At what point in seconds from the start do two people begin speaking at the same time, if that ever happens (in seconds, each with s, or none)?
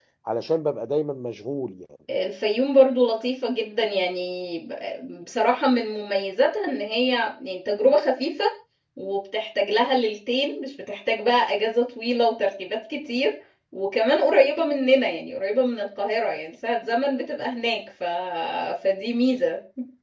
none